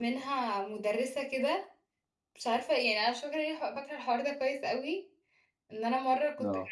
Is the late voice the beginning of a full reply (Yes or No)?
No